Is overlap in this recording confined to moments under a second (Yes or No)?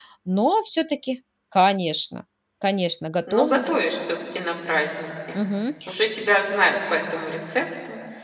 Yes